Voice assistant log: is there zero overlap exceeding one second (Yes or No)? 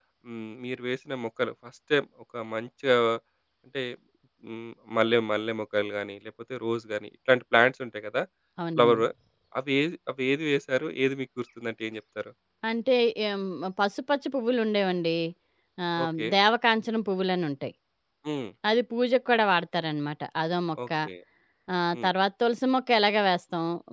Yes